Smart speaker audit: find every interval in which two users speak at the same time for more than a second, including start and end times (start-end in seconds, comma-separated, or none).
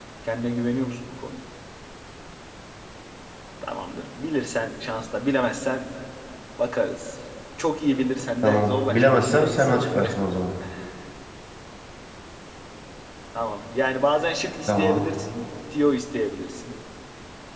8.4-10.1